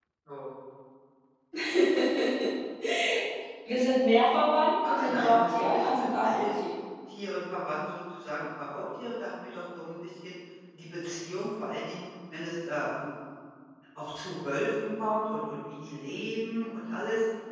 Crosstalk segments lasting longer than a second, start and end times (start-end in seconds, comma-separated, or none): 4.8-6.6